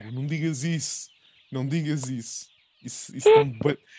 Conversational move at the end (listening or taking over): listening